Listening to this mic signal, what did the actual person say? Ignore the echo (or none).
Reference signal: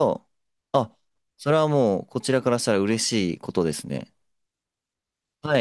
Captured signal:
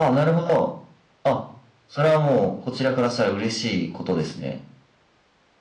none